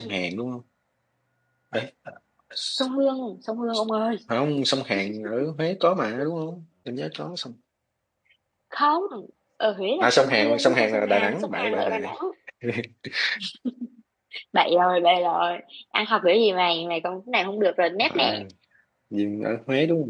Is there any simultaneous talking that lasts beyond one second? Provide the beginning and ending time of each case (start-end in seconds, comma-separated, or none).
10.0-12.1